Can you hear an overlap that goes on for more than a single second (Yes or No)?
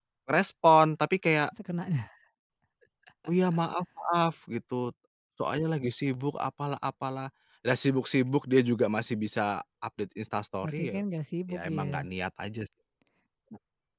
No